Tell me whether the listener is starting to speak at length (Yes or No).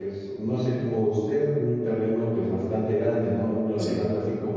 No